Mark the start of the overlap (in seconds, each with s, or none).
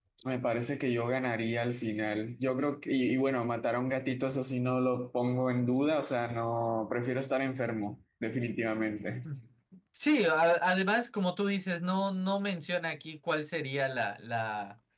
none